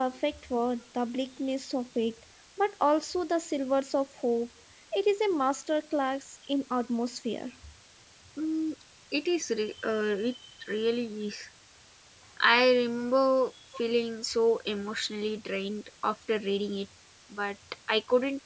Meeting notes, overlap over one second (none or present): none